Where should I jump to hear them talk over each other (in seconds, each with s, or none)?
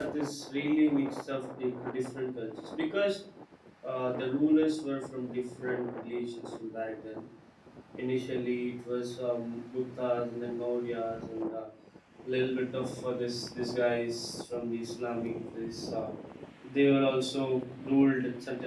none